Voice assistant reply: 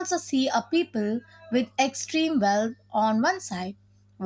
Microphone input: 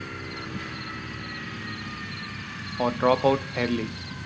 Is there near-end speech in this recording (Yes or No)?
Yes